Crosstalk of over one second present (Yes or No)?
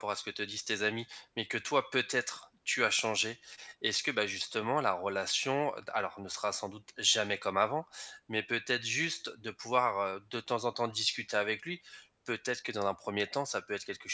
No